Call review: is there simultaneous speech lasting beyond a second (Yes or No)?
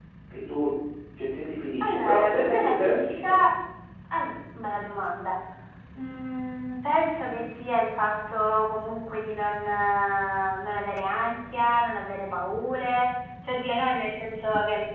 Yes